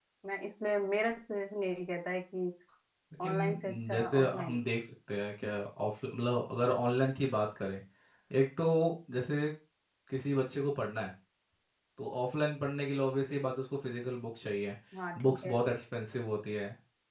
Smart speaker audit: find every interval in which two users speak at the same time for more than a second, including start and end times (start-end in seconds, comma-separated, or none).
3.2-4.6